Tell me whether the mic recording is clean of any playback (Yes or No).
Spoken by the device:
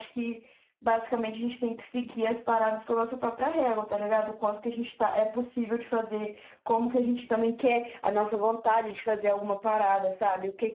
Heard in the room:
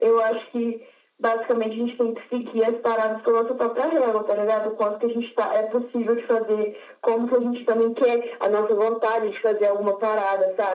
No